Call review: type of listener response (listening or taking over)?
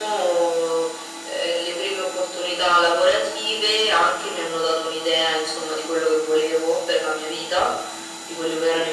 listening